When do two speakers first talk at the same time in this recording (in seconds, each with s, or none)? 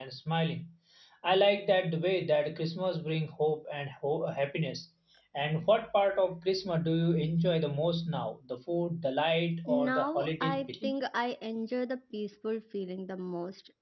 9.7 s